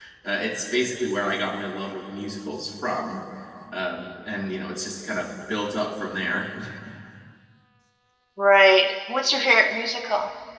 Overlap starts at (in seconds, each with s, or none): none